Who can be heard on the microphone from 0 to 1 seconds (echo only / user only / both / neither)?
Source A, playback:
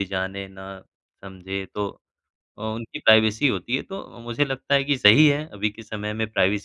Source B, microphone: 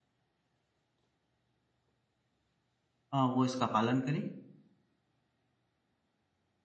neither